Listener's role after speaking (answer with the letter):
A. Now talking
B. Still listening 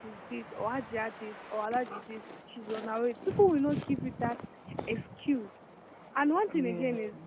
B